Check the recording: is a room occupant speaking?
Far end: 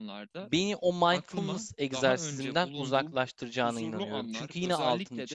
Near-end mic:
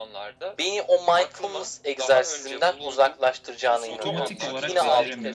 Yes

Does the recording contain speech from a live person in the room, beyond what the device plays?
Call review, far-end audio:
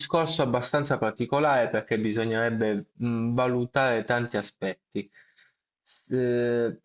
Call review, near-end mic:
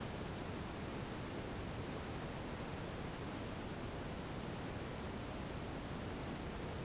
No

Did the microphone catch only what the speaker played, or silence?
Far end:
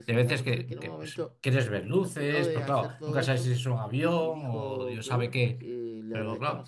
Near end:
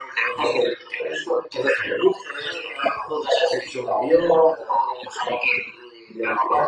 Yes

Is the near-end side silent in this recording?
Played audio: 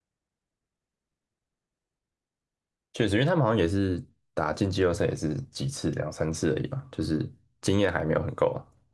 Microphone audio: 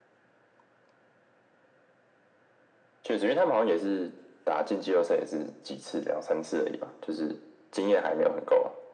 Yes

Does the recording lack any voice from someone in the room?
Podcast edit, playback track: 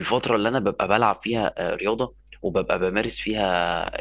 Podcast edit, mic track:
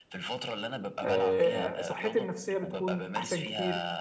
No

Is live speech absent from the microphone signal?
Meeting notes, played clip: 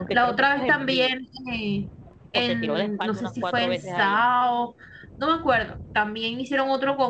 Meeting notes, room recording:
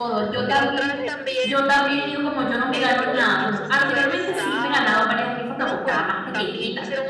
No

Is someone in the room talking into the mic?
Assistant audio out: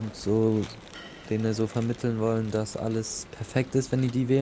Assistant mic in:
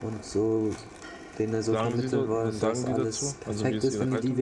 Yes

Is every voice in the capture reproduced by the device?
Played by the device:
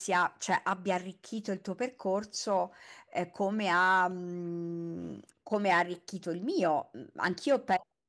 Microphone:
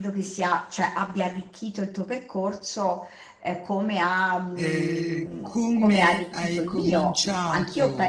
No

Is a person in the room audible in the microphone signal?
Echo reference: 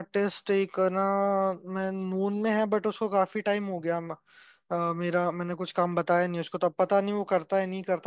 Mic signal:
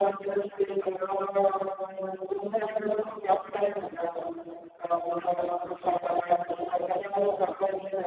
No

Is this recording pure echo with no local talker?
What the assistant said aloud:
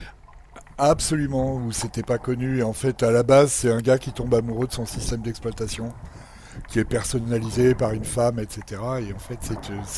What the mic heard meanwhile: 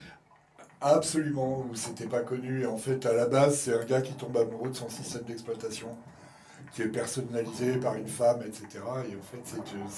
Yes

